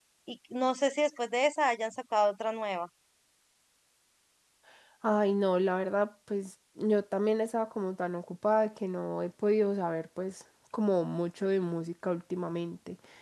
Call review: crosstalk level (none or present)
none